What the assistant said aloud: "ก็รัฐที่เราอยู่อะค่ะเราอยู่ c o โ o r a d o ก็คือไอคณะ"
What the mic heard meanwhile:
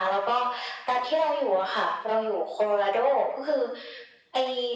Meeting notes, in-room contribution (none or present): none